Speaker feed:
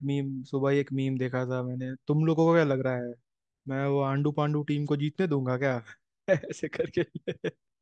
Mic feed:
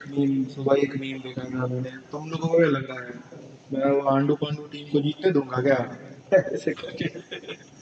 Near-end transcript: none

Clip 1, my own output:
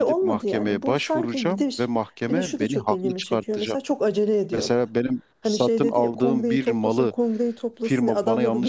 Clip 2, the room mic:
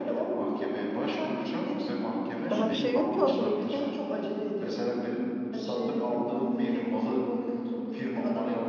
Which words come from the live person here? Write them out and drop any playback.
Daha bir şey yok ki ortada. Bir de

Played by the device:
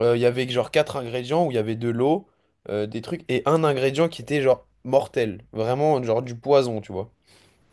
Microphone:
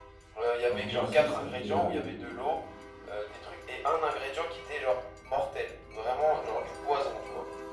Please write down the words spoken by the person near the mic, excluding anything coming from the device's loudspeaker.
Influenceur, ça fait euh,

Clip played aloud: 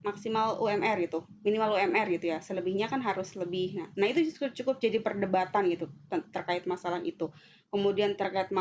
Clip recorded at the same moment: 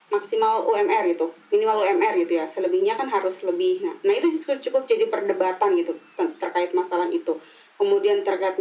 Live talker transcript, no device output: none

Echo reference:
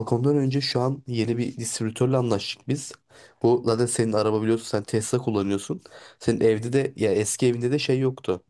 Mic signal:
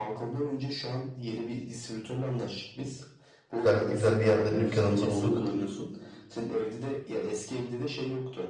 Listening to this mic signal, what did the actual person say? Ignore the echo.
Güzel bir güzel bir yerde dükkanımızı bulduk.

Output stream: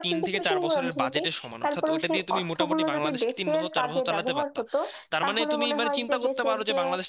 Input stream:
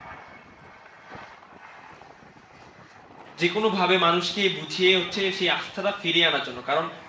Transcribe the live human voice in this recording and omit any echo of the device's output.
যে কোনোভাবে মানুষকে বুঝিয়ে হচ্ছে সেই আস্থাটা ফিরিয়ে আনার জন্য কারণ

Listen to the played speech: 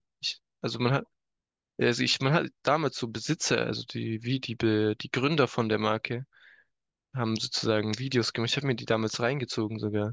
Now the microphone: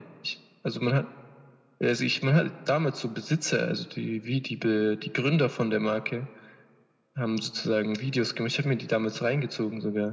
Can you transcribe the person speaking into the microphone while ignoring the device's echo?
none

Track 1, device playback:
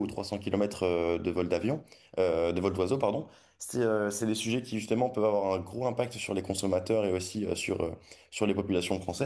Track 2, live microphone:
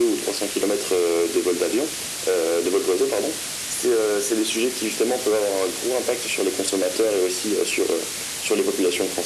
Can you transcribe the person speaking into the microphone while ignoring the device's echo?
none

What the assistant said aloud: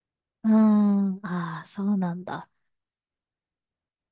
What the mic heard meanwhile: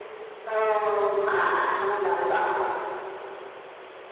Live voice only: うんうんうん。

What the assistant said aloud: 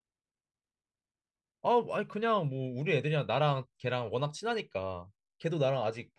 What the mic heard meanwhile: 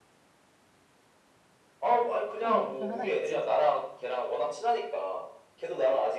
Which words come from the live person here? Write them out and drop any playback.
그 목표 하나 있지.

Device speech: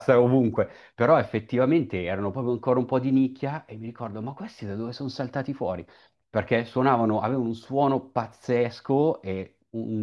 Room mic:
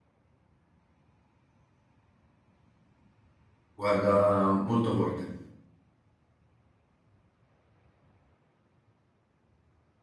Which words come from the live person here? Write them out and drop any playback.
guarda, molto forte.

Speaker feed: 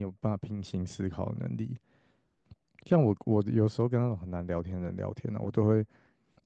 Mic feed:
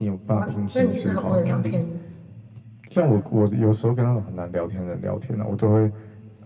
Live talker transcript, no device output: 哇，那你是很会聊天的

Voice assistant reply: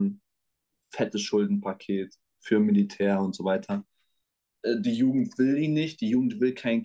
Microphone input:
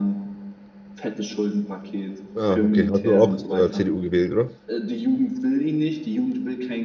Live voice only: Ah, okay. Hast du auch äh, CDU gewählt, oder?

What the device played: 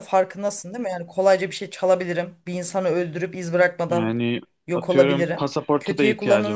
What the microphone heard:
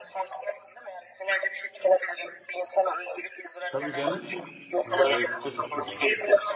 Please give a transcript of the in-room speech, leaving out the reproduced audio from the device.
Tabii canım. Yani gözlük de çok iyi var.

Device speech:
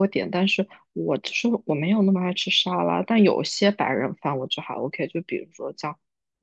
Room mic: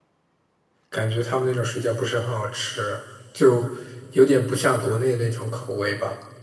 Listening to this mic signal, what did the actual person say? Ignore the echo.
感觉他们那种水饺不是很好吃，就有点不像国内的那种口味吧。

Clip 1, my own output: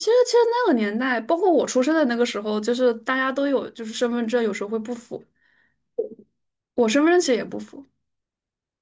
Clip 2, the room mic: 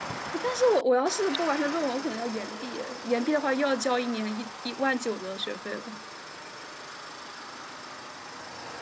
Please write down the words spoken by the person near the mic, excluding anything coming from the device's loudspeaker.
但是我我要是不完成论文，我可能要延毕，延毕的话又要交一年一一万九的学费了。

